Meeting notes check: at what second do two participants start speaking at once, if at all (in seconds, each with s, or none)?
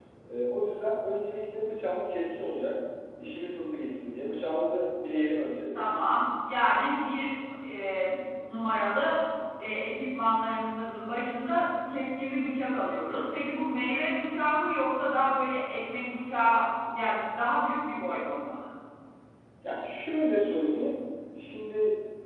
none